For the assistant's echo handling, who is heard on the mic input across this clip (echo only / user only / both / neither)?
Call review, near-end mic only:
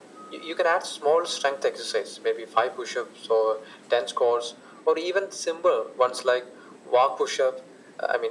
echo only